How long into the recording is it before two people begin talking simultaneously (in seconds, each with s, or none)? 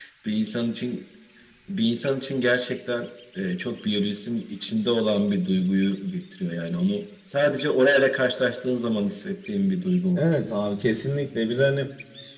none